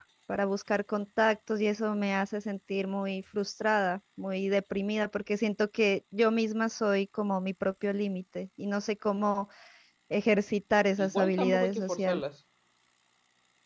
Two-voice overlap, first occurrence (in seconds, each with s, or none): 11.0 s